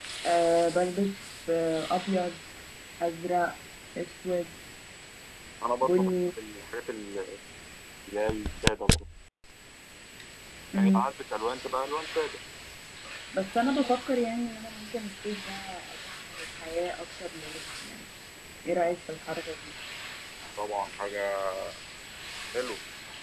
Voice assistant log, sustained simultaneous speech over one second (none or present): none